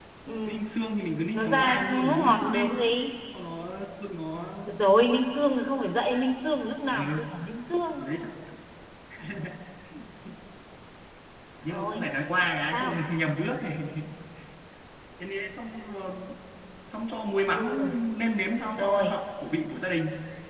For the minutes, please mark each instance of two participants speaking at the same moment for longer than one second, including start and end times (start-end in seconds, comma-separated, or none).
1.3-2.7